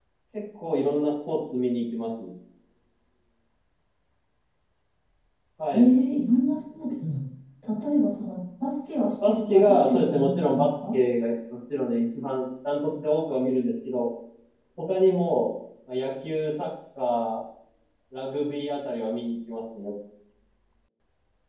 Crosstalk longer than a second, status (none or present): present